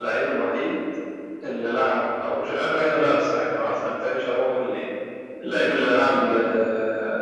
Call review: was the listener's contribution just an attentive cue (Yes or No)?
Yes